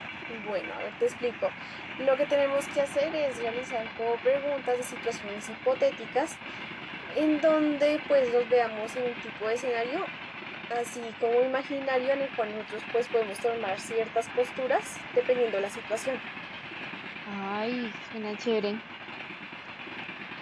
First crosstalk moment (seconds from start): none

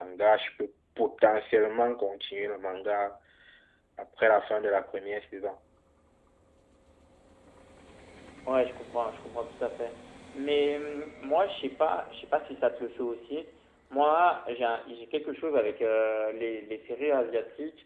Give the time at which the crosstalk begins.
none

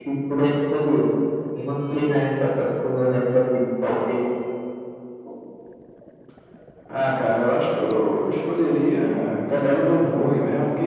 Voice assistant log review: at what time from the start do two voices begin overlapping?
none

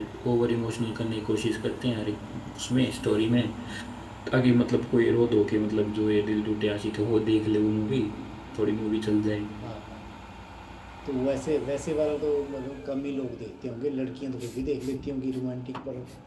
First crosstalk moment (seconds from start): none

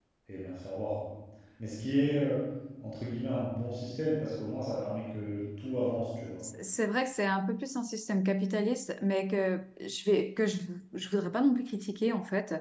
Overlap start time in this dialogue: none

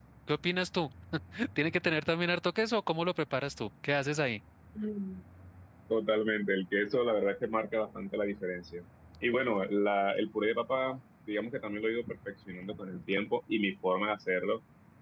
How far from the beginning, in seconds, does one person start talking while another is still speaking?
none

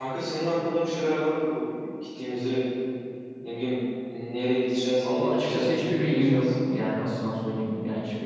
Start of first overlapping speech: 5 s

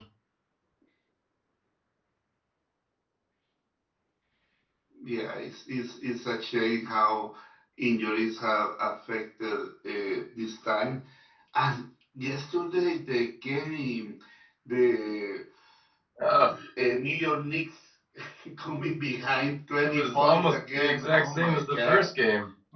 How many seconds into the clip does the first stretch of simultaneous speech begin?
20 s

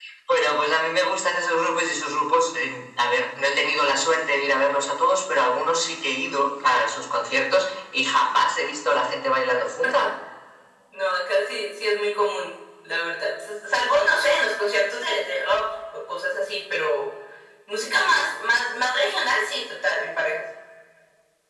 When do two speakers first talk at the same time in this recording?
none

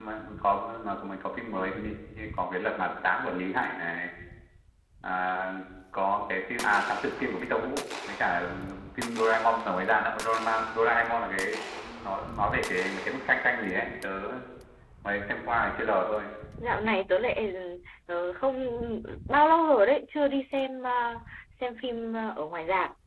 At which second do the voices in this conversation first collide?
none

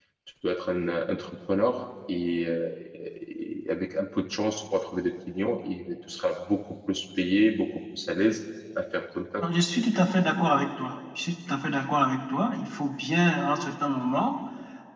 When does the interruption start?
none

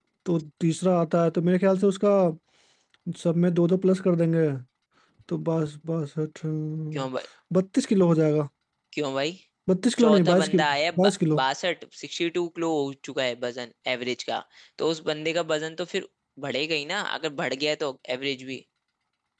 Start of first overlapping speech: 10 s

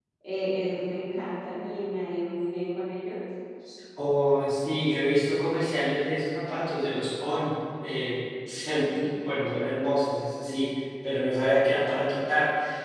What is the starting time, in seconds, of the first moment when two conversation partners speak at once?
none

